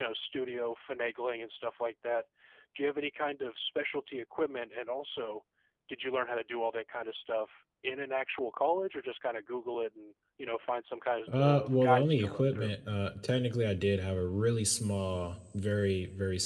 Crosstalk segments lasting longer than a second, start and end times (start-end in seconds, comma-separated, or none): 11.3-12.7